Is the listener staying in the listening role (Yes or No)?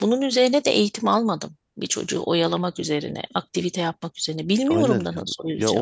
No